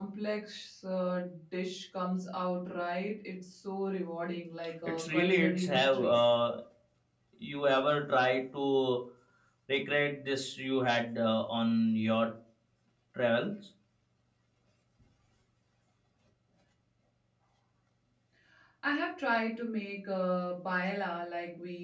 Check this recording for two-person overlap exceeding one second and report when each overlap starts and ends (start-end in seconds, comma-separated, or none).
4.8-6.1